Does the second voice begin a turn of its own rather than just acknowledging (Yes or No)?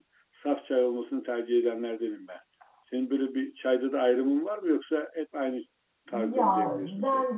Yes